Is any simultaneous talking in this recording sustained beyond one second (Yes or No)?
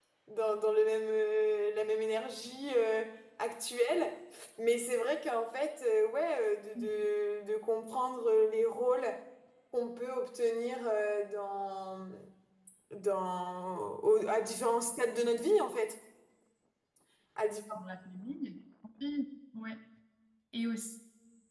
No